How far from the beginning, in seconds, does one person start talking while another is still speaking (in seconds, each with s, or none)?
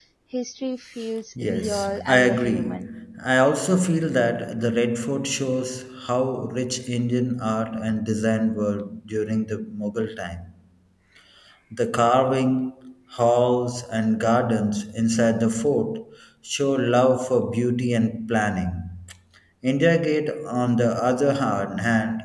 1.4 s